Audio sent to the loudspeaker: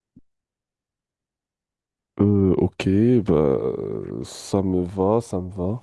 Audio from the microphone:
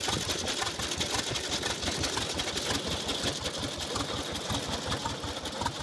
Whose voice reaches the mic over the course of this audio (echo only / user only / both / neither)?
neither